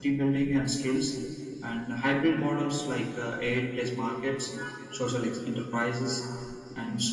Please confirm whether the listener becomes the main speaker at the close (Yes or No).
No